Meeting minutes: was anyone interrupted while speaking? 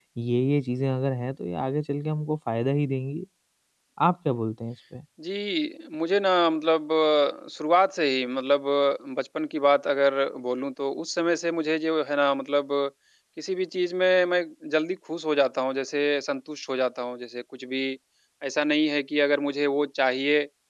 No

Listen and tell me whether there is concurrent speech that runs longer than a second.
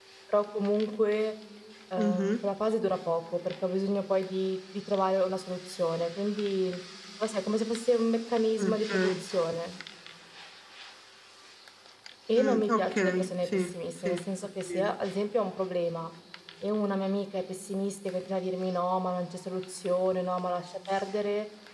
Yes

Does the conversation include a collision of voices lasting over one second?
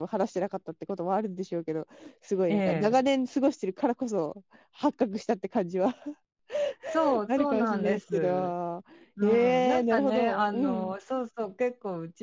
Yes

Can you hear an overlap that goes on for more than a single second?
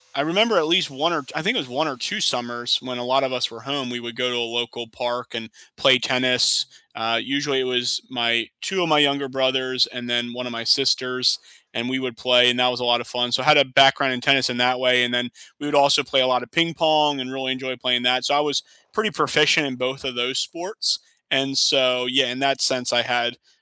No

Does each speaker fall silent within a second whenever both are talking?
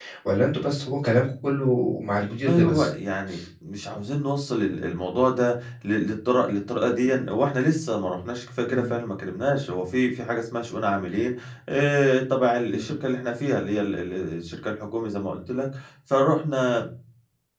Yes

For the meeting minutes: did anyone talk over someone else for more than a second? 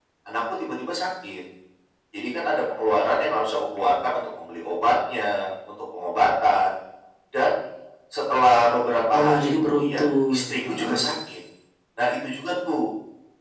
Yes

